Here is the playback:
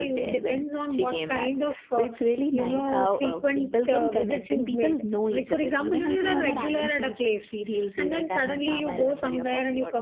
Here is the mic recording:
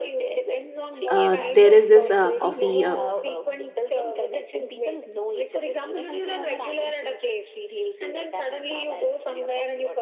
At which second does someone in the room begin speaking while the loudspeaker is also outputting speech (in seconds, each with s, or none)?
1.1 s